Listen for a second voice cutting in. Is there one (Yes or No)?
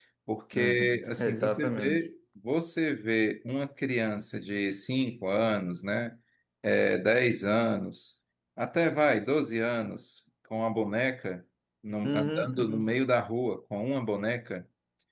Yes